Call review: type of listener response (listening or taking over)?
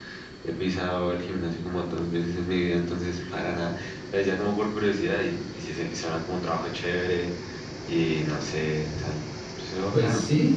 taking over